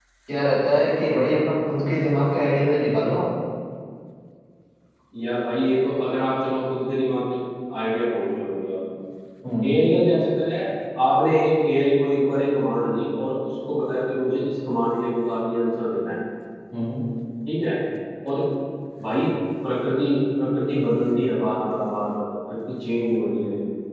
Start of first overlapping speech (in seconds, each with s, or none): none